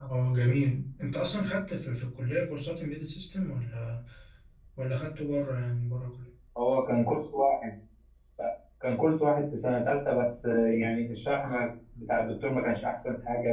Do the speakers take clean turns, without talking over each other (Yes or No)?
Yes